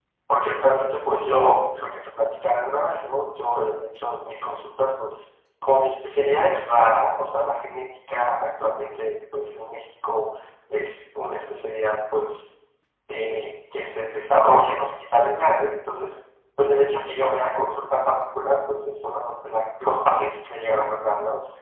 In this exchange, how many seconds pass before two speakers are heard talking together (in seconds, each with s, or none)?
none